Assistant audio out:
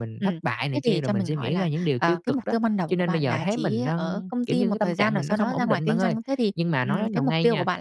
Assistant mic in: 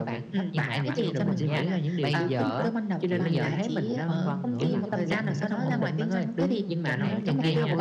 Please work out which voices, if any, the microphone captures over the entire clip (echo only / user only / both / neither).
both